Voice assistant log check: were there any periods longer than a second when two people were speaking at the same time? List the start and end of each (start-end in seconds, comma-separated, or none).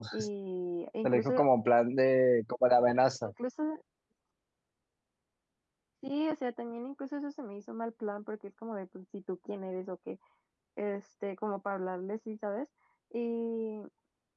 none